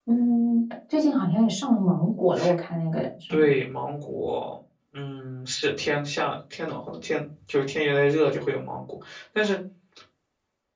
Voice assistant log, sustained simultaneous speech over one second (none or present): none